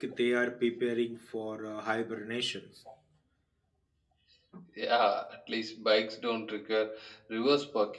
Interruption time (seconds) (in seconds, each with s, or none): none